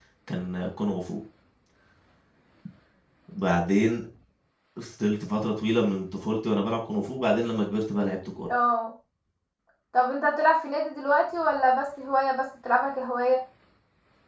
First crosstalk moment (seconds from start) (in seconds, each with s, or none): none